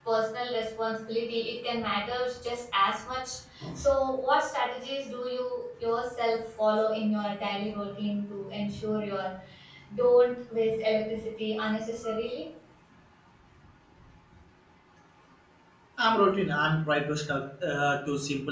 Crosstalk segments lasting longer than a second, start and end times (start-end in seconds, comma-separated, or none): none